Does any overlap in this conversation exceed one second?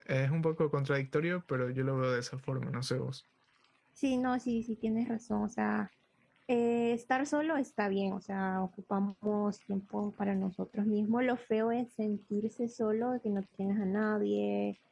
No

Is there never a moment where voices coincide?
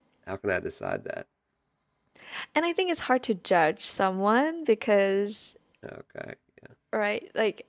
Yes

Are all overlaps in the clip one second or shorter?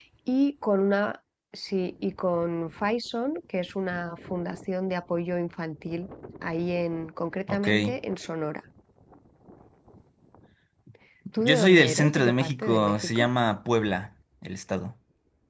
No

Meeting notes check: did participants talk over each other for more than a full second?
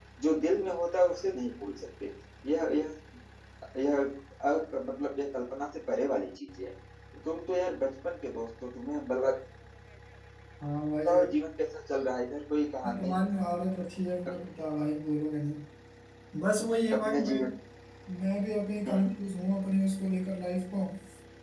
No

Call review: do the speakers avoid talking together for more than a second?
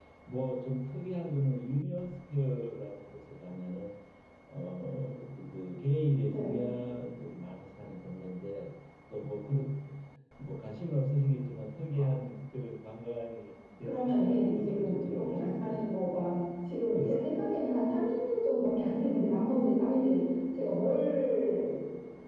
No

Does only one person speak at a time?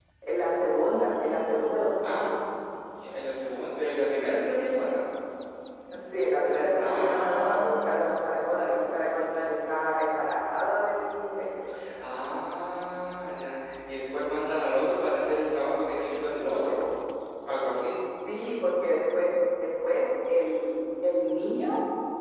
No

